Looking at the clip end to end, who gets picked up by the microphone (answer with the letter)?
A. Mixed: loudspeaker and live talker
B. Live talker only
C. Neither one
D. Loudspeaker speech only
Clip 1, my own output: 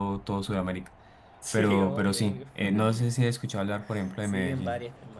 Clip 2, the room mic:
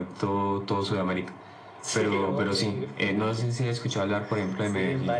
D